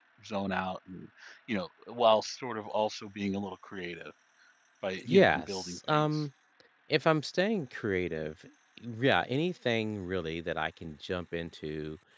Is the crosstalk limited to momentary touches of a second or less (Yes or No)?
No